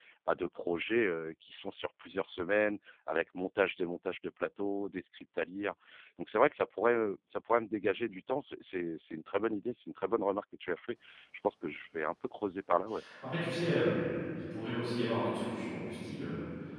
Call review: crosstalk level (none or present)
none